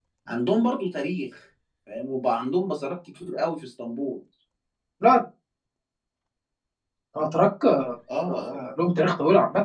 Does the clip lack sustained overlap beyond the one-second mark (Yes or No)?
Yes